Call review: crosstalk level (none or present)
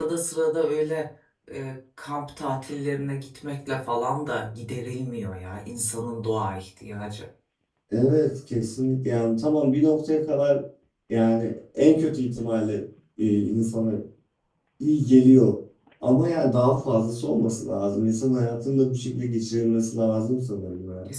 none